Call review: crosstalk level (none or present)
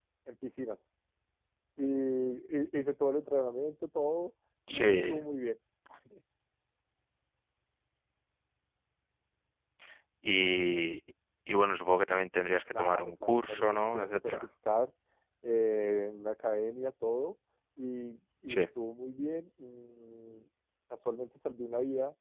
present